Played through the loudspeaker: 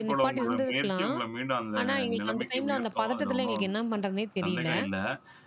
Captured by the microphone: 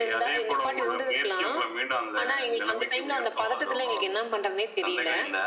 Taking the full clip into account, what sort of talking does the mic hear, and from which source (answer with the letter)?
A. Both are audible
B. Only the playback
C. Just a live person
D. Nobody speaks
B